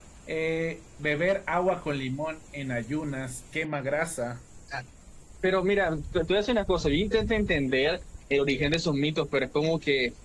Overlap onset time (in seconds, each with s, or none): none